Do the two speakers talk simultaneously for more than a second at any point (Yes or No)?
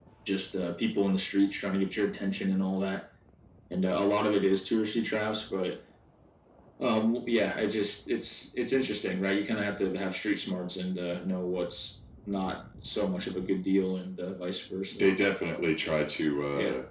No